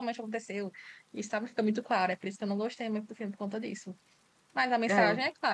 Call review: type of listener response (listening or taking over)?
listening